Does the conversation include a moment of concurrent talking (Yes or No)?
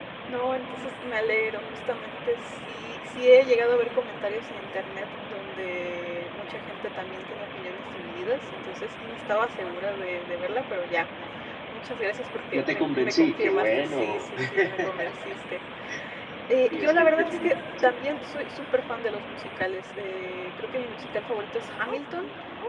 Yes